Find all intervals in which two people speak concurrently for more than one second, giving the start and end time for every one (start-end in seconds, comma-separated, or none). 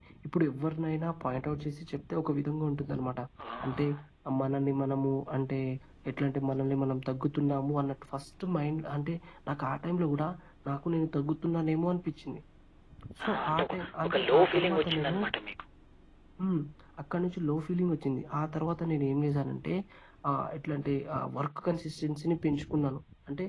13.2-15.2